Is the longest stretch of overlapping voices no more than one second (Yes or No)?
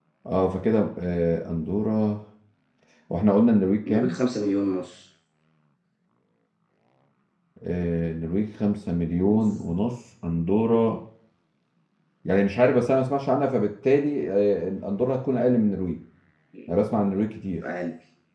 Yes